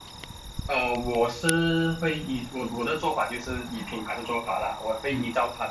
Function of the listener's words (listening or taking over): listening